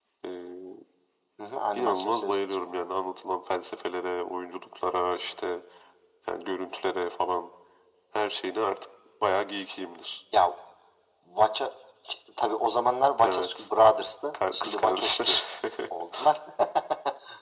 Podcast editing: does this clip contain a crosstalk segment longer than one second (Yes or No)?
Yes